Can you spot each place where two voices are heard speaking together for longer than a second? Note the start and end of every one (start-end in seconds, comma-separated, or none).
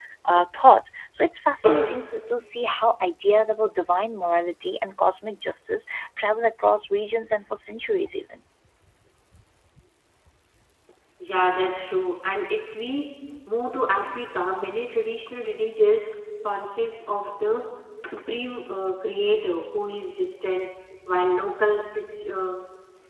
none